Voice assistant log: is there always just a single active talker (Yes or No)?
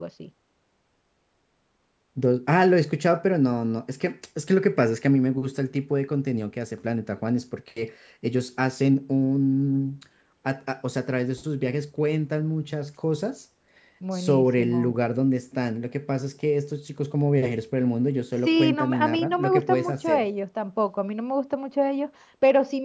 No